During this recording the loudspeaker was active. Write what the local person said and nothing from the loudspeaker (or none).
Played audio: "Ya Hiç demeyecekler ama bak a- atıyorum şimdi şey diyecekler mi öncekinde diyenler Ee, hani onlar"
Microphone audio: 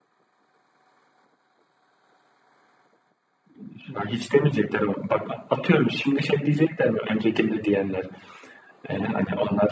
none